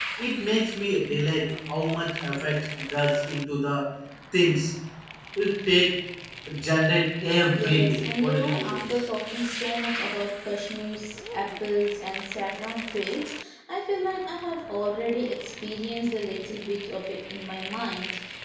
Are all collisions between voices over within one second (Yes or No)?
No